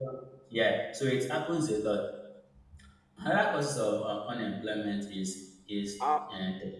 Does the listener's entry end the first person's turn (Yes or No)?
No